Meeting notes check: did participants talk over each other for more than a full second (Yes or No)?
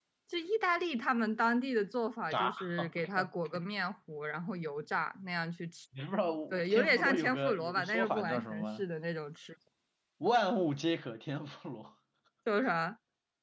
Yes